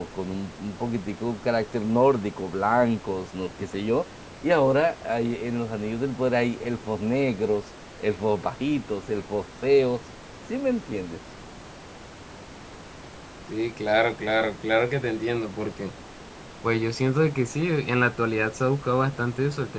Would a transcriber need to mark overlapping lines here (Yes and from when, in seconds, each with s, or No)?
No